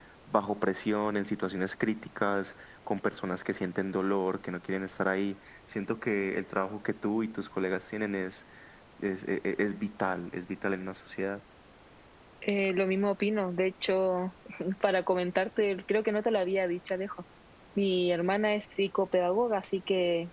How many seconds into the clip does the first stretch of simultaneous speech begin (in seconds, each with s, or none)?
none